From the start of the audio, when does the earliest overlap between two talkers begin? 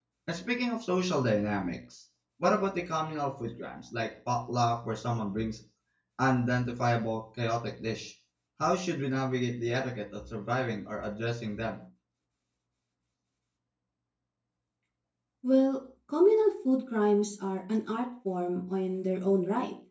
none

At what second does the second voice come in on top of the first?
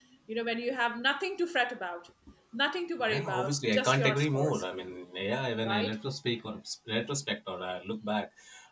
3.0 s

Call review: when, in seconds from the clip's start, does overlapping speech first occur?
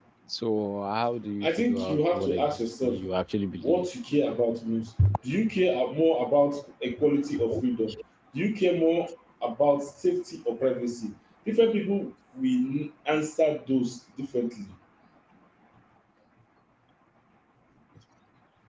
1.4 s

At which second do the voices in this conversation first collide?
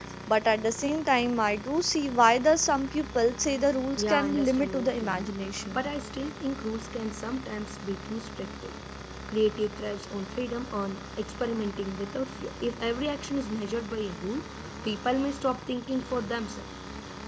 4.0 s

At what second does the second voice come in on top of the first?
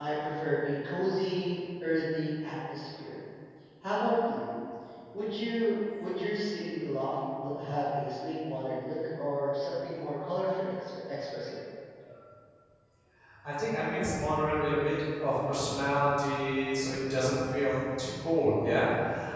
none

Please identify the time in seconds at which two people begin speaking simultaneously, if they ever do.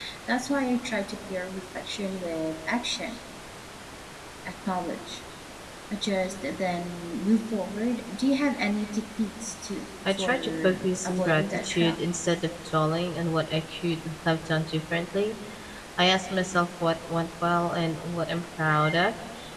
10.1 s

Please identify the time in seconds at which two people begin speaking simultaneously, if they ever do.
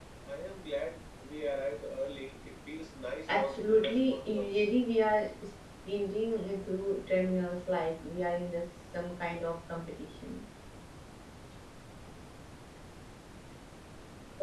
3.3 s

